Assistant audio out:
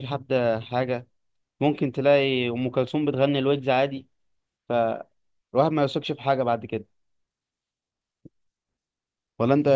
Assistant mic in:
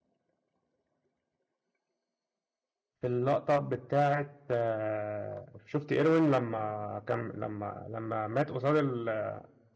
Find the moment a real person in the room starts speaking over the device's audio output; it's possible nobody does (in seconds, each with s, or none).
3.0 s